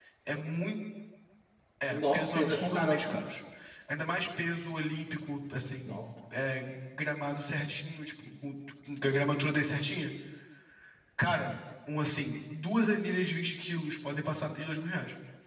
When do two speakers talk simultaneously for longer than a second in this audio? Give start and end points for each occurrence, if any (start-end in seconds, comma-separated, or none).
1.9-3.2